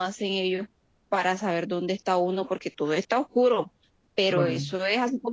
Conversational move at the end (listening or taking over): listening